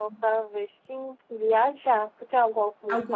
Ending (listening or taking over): listening